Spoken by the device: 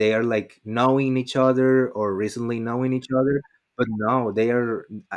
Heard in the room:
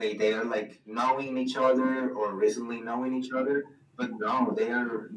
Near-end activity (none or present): none